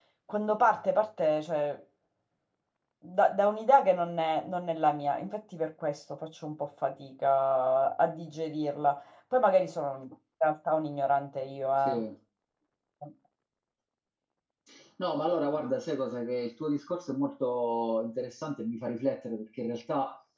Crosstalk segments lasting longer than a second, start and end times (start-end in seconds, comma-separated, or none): none